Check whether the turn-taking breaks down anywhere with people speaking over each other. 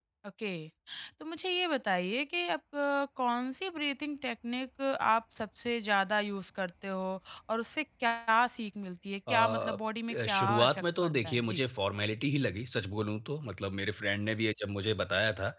Yes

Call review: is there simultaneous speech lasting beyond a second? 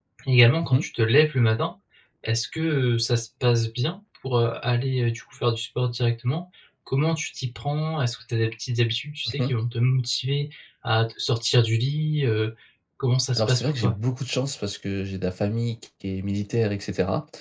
No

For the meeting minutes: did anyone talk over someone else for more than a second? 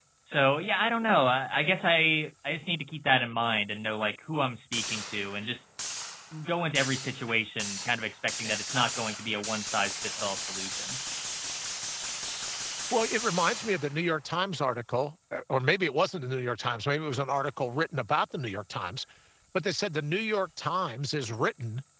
No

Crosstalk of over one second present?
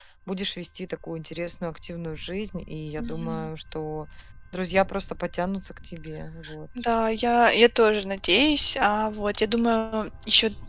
No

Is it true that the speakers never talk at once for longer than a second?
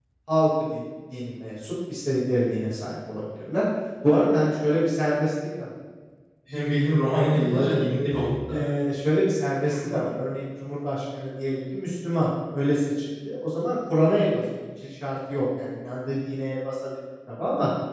Yes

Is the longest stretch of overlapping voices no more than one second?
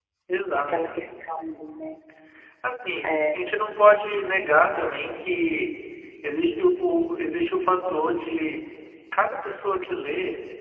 Yes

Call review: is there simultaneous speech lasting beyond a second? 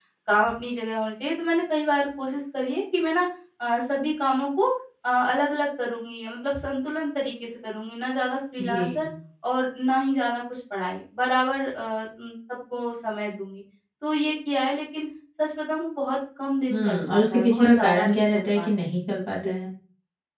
Yes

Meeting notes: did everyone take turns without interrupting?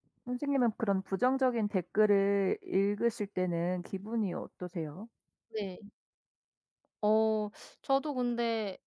Yes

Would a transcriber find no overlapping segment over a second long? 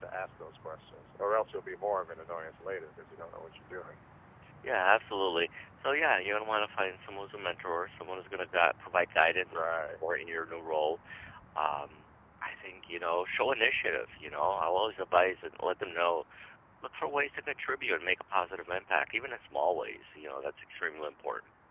Yes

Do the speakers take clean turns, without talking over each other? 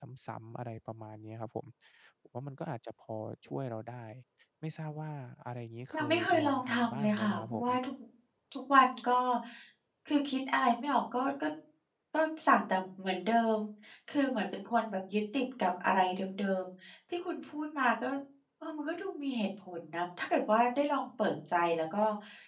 No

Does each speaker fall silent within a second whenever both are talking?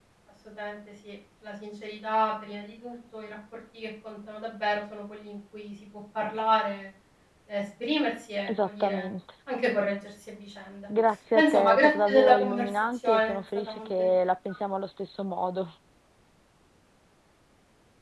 No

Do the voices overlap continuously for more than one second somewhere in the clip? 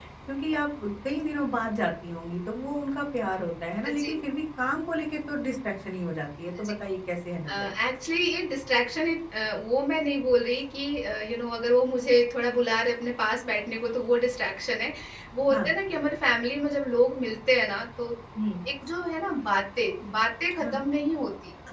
No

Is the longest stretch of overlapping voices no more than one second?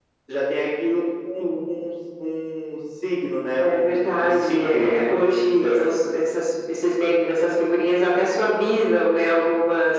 No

